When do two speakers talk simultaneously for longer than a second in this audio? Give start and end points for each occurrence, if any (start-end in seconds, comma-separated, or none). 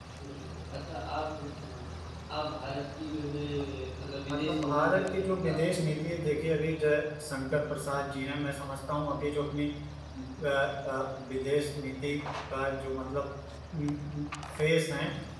4.3-6.3